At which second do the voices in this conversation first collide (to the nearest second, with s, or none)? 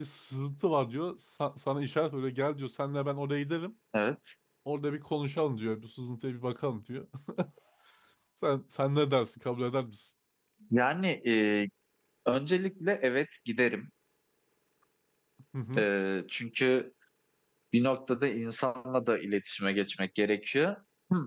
none